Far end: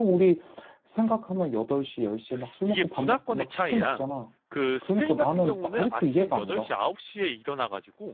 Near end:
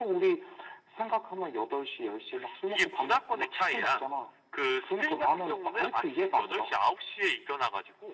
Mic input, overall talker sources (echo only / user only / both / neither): echo only